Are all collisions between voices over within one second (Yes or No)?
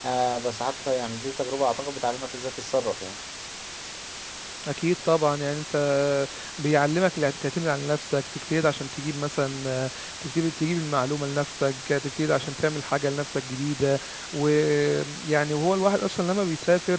Yes